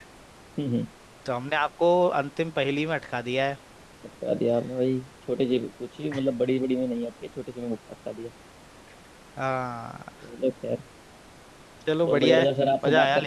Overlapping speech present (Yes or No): Yes